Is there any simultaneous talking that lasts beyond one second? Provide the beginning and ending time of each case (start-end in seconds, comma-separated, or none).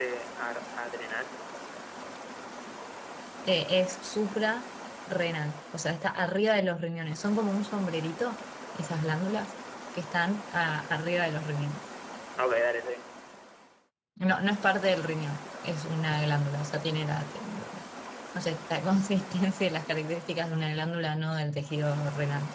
none